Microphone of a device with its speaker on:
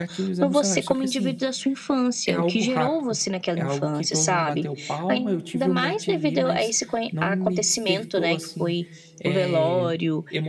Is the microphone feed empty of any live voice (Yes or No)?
No